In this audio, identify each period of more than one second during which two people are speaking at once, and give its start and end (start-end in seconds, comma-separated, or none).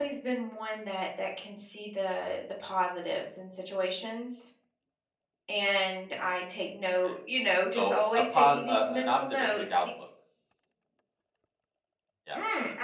7.7-9.7